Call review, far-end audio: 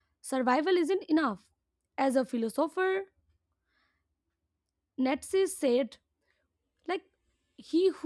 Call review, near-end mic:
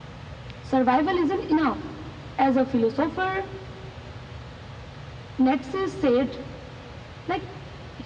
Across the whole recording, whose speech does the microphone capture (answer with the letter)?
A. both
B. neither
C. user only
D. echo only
D